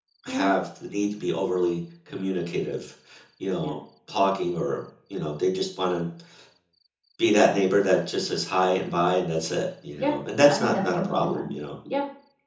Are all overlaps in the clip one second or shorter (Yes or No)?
No